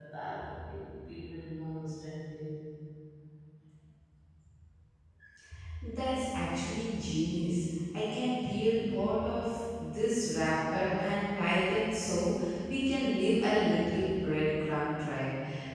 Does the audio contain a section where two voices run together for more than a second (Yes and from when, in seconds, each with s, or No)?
No